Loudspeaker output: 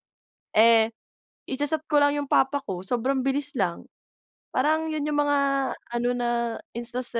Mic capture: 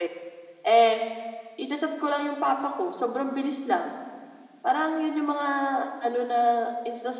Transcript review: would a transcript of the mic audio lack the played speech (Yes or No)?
No